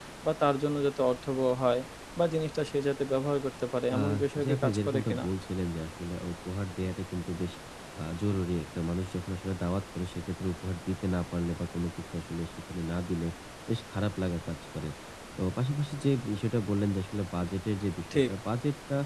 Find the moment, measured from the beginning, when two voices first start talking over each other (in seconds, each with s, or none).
3.9 s